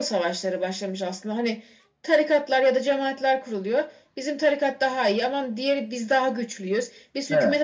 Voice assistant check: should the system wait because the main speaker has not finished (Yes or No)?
Yes